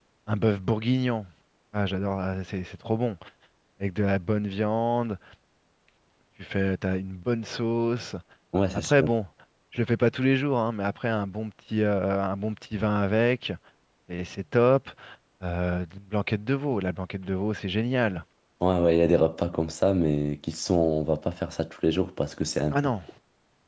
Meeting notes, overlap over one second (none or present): none